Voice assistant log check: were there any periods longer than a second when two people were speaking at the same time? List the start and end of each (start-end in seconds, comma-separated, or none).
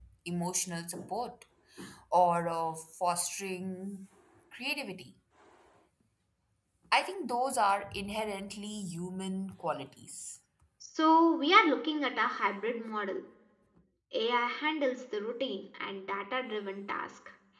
none